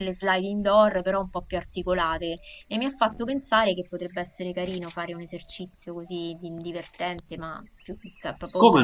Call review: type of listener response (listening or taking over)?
listening